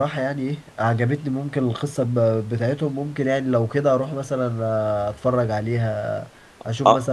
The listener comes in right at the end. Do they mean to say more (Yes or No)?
Yes